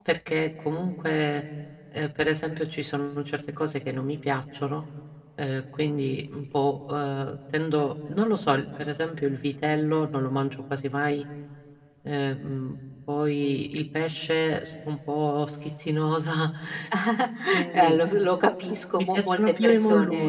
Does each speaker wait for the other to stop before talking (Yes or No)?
No